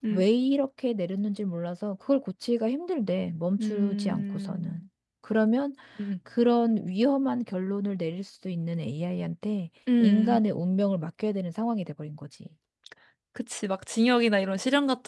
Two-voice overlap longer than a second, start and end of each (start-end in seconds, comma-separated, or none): 3.6-4.8